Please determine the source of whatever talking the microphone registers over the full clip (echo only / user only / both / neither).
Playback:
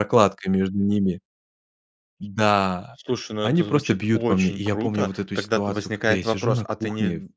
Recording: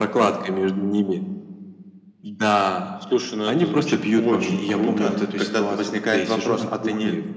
echo only